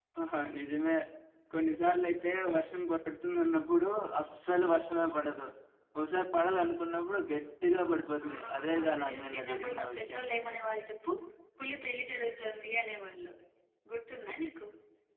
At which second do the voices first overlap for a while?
8.2 s

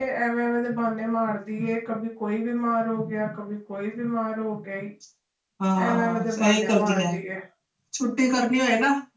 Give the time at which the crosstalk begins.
5.8 s

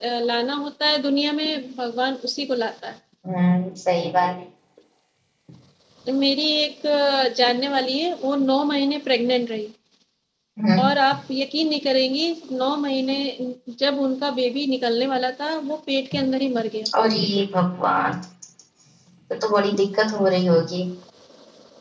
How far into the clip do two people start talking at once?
none

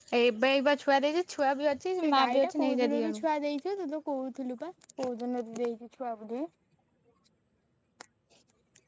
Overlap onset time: 2.0 s

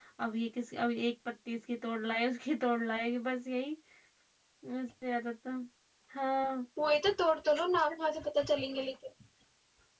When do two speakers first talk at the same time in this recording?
none

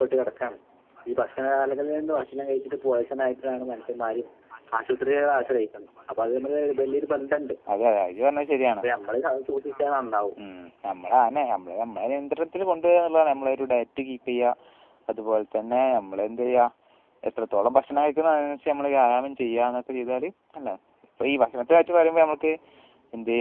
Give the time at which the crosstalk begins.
none

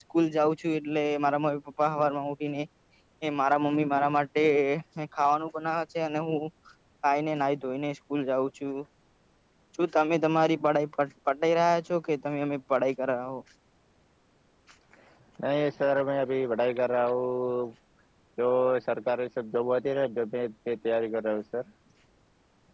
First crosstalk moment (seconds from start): none

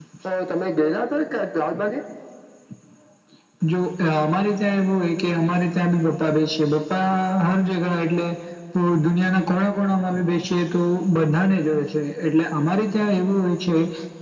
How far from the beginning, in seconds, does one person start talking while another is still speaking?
none

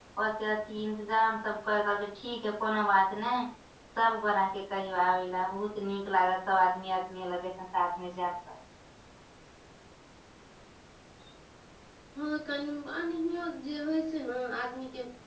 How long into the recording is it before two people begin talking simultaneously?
none

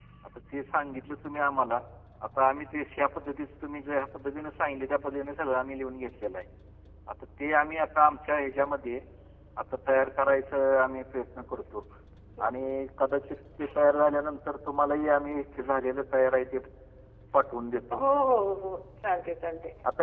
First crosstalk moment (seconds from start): none

